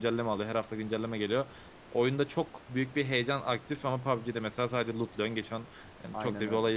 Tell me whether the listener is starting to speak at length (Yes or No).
No